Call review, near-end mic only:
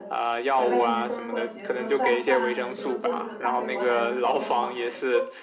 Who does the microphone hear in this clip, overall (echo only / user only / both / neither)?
both